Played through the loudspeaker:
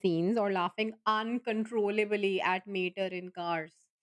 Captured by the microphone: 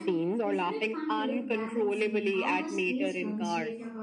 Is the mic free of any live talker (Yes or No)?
No